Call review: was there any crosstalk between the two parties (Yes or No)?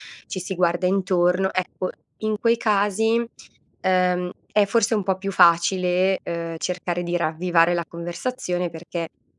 No